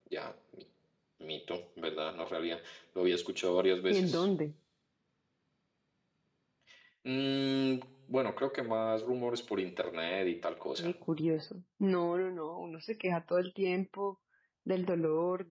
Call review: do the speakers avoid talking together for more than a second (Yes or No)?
Yes